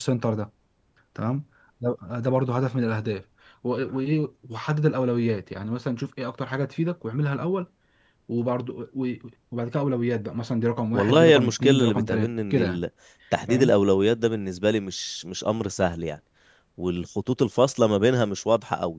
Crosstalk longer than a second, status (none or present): present